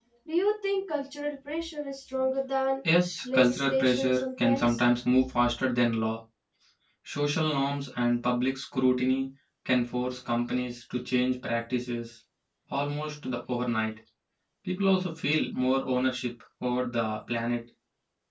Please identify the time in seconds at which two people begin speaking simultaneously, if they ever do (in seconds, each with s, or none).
3.3 s